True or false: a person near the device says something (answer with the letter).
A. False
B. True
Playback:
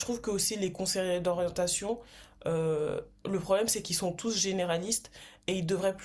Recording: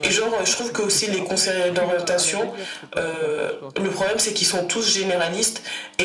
B